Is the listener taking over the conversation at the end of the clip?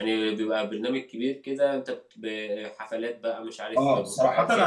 Yes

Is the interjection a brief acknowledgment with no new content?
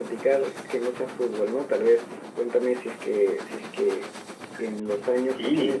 Yes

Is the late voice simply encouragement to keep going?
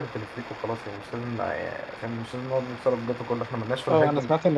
No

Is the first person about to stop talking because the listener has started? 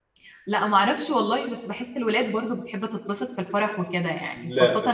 No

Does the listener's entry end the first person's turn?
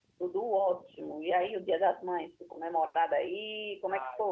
Yes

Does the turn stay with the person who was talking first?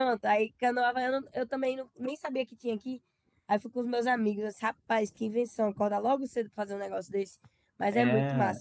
No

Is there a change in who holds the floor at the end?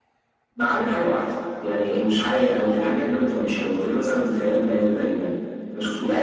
Yes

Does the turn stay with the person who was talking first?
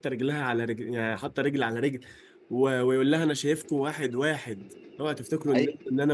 No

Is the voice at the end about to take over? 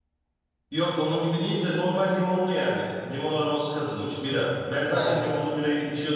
No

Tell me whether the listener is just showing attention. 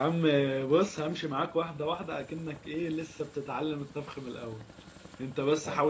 Yes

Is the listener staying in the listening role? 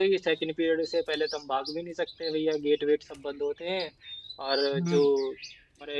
Yes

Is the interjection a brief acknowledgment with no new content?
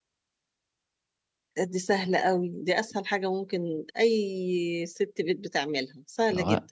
No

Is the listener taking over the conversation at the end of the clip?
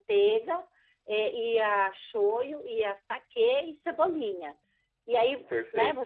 No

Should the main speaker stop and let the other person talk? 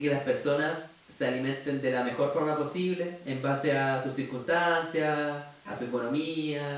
No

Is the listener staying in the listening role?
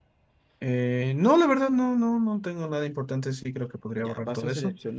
No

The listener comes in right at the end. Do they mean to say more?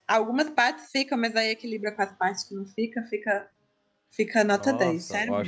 Yes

